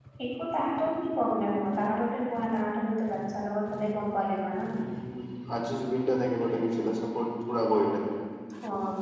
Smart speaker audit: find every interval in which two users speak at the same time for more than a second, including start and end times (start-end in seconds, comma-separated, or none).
none